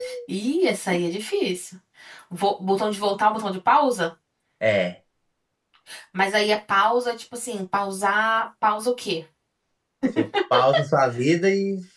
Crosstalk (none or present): none